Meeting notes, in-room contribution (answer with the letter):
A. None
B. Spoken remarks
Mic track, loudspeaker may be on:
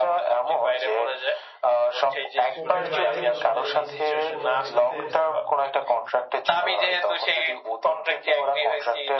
B